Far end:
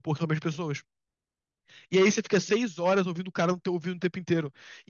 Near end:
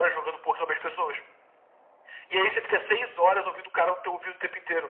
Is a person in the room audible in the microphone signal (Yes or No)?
No